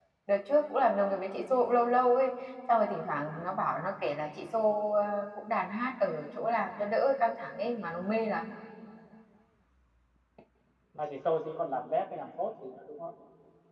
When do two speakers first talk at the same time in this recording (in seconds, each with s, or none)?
none